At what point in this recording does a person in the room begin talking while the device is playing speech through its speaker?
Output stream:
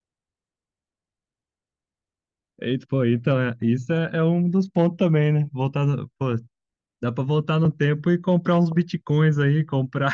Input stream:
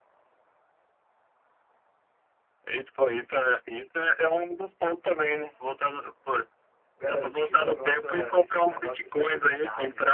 7.0 s

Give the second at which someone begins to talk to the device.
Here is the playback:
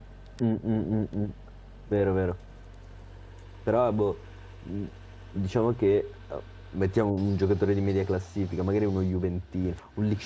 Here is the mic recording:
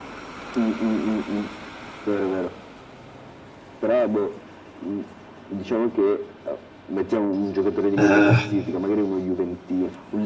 8.0 s

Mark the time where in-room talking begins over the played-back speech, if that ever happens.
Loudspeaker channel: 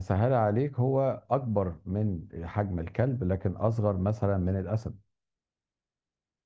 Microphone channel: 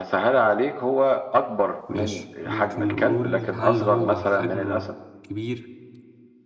1.9 s

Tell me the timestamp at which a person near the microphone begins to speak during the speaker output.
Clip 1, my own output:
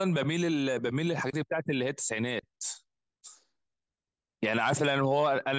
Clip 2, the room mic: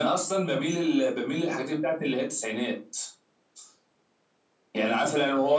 none

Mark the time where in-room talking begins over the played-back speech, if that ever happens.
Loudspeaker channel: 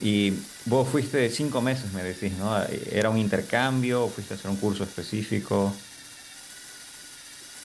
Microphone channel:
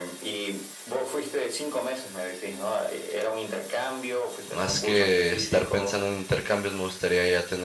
4.5 s

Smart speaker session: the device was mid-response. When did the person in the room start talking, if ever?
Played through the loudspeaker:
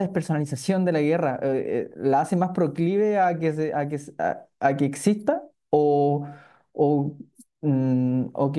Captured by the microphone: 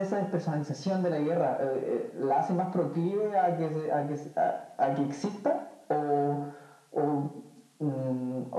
none

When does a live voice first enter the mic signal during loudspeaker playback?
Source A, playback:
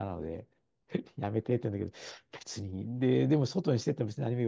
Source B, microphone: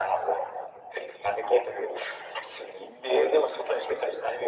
none

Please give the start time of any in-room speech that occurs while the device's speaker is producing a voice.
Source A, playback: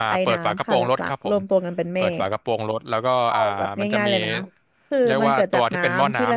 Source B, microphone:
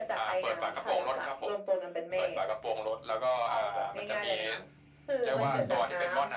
5.3 s

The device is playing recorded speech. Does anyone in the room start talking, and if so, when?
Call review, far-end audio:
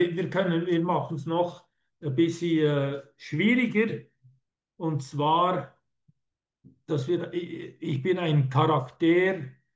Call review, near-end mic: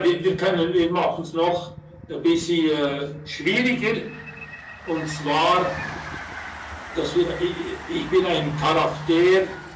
none

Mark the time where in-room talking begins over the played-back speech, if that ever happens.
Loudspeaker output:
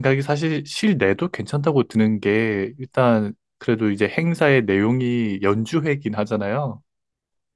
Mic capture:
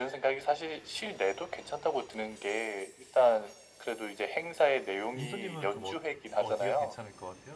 5.1 s

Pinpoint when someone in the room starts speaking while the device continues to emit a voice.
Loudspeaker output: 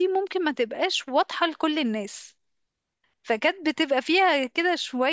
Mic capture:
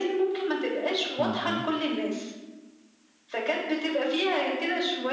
1.2 s

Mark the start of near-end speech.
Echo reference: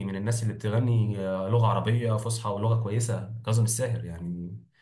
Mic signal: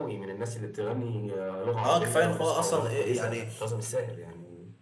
1.8 s

